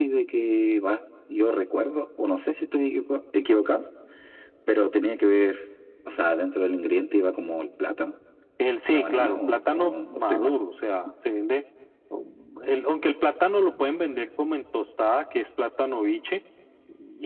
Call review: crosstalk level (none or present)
present